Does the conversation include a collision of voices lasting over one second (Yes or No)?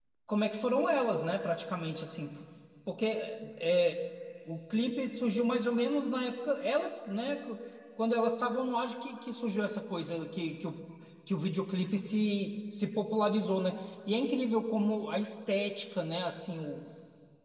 No